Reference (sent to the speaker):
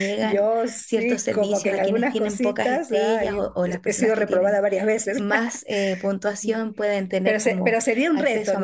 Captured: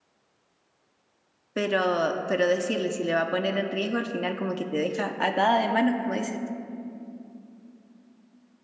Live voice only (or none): pero, pero decirle si le va a poner en riesgo, al final como que te deja atada de manos, como dices tú.